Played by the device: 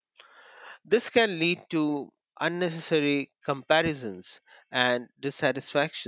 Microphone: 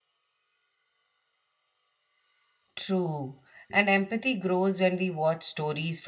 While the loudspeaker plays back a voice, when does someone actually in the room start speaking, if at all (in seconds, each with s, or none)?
2.8 s